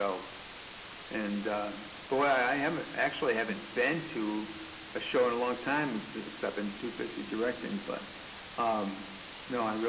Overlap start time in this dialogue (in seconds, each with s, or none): none